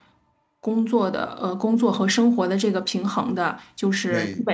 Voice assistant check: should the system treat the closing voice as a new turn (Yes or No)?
No